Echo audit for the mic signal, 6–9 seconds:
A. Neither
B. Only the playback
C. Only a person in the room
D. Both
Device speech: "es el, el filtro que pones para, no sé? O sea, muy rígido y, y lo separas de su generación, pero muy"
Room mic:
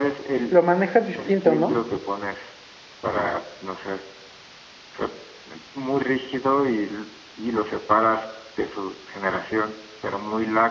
B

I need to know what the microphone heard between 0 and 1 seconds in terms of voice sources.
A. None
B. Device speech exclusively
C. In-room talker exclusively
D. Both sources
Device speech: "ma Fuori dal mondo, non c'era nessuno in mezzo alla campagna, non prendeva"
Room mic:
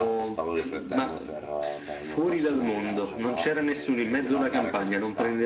D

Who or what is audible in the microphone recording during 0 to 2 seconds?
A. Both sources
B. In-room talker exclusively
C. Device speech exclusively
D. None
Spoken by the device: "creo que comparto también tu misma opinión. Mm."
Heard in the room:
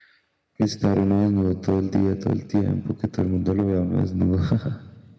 B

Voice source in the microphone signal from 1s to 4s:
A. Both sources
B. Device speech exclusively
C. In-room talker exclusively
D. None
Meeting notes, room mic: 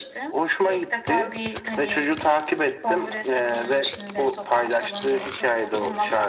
B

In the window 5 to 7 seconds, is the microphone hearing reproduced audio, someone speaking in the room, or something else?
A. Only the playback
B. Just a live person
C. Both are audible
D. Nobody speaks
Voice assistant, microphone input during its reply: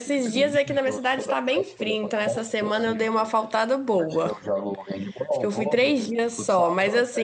C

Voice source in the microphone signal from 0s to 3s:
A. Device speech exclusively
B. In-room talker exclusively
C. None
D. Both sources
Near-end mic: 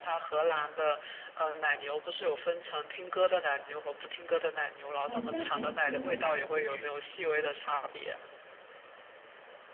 A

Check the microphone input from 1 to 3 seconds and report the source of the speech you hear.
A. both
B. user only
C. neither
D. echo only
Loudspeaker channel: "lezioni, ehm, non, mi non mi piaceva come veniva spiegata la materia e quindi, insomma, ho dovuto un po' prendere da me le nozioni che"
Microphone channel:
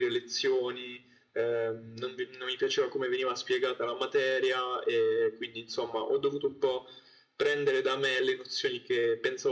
D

